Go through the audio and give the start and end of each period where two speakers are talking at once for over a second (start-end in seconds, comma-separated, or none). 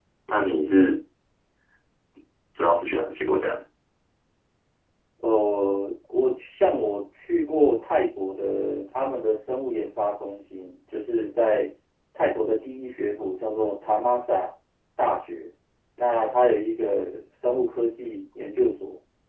none